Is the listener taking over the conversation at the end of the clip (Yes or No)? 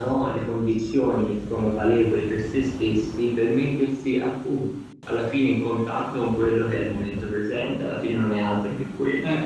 Yes